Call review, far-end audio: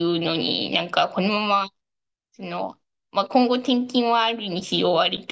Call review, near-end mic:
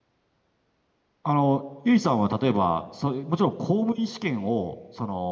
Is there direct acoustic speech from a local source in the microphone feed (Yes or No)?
Yes